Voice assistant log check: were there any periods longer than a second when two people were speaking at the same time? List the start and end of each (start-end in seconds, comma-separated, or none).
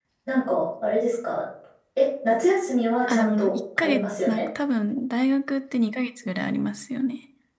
3.1-4.4